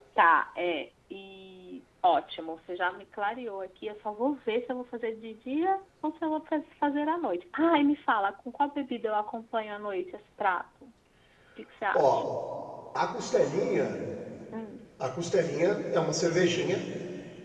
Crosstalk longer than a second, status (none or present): none